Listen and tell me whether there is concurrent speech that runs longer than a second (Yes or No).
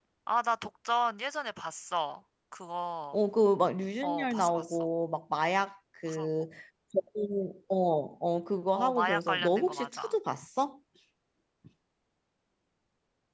Yes